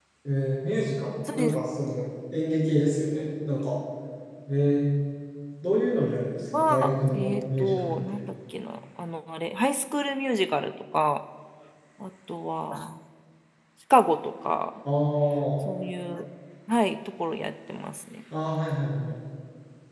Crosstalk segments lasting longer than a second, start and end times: 6.5-8.2

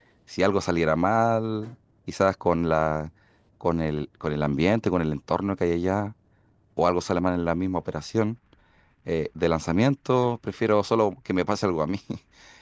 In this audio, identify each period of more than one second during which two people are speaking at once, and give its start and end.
none

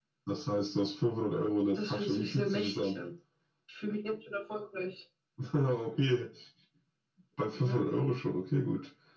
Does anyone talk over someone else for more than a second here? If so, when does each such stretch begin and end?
1.8-3.0

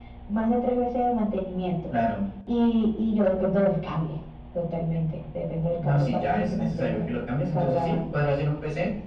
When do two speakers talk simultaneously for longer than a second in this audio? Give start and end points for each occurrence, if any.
5.8-7.1

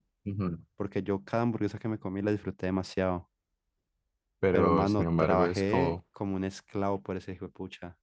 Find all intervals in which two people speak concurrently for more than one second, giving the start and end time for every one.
4.5-6.0

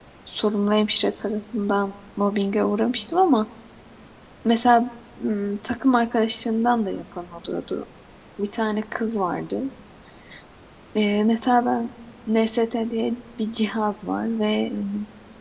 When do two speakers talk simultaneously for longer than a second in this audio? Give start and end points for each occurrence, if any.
none

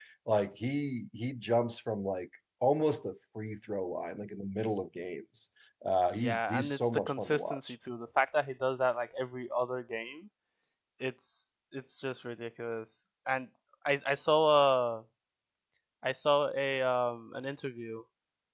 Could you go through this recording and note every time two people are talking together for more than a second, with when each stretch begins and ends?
6.2-7.6

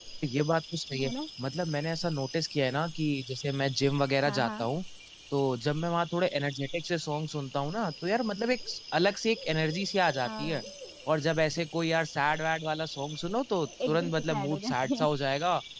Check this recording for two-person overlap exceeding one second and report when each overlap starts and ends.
13.8-15.1

